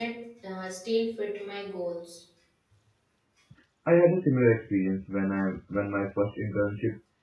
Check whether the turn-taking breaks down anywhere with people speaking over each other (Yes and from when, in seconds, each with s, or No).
No